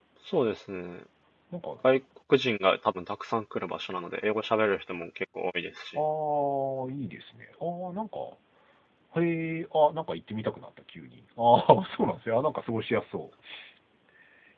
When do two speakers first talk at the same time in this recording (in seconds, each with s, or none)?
none